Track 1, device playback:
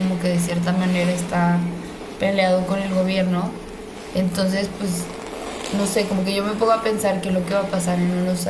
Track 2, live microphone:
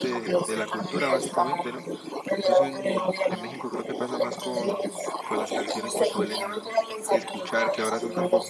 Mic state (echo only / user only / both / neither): both